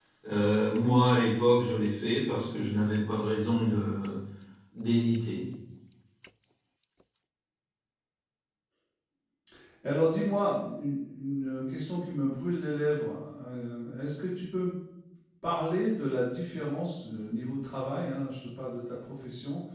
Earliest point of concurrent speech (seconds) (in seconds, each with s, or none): none